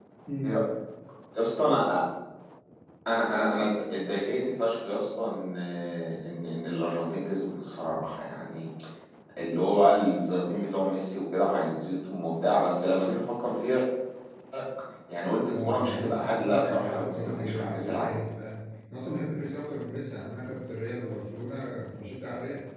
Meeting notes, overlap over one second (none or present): present